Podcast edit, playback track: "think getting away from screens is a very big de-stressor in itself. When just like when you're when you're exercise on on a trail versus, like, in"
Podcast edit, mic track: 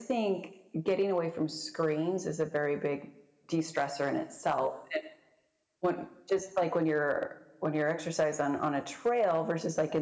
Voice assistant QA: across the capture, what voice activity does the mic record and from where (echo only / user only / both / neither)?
echo only